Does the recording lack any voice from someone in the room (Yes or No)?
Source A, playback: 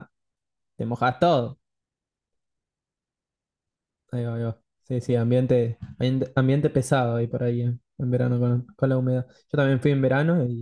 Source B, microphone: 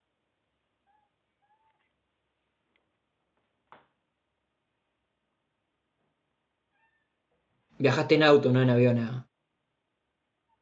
No